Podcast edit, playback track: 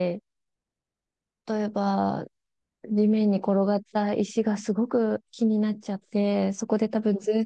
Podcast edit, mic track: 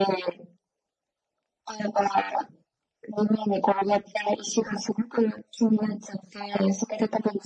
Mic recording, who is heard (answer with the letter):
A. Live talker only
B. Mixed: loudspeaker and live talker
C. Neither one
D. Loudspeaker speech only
D